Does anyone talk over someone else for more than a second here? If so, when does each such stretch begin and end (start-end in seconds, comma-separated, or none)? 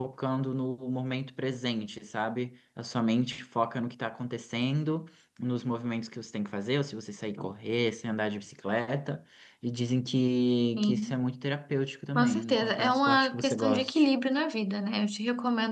12.2-14.1